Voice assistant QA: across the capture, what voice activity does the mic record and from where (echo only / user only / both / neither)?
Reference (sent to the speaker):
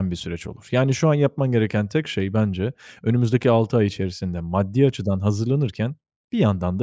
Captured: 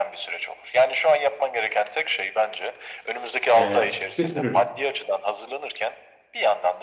both